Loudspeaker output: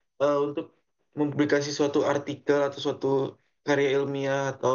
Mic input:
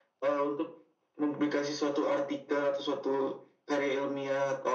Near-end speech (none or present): none